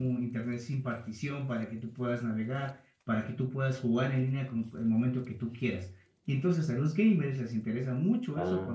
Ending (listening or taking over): listening